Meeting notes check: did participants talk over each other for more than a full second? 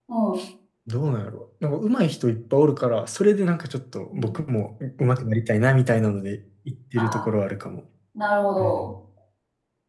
No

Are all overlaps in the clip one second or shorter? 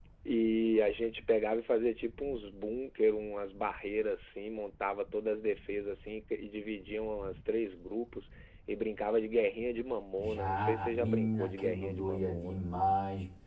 No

